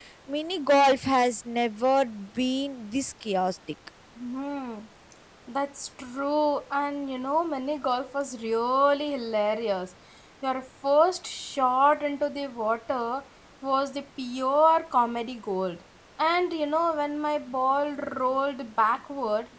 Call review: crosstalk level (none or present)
none